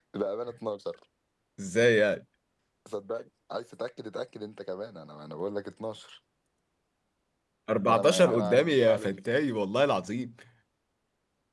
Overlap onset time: 7.9 s

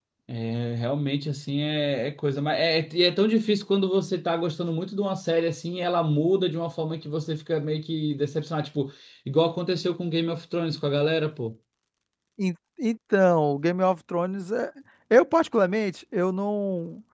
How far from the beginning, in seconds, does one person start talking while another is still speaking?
none

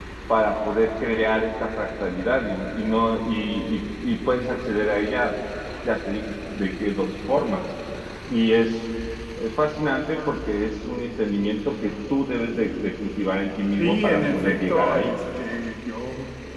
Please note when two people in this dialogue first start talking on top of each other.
13.8 s

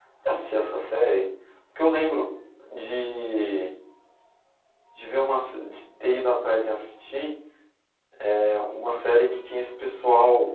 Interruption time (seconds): none

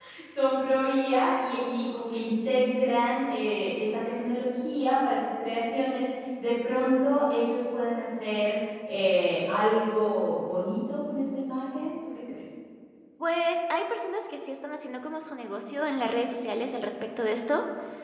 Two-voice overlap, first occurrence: none

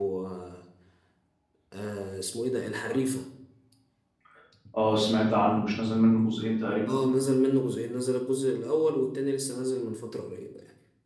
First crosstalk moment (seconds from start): none

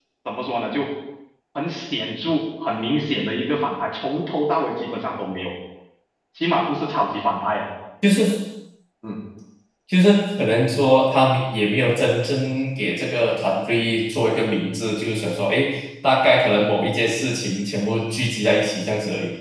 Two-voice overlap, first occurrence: none

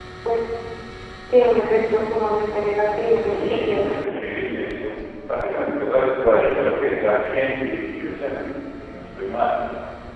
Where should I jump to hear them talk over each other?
3.0 s

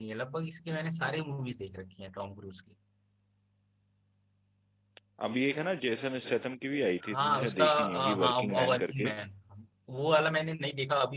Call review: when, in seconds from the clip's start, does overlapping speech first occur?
7.0 s

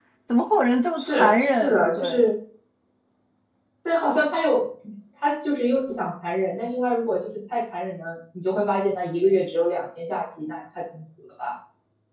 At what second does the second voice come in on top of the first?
1.0 s

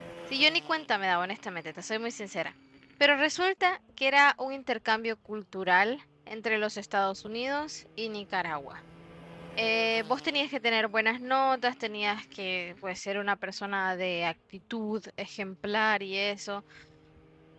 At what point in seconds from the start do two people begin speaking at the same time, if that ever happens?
none

